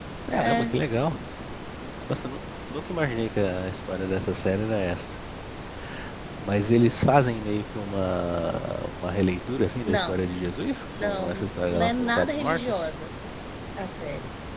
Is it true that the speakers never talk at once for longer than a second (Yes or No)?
No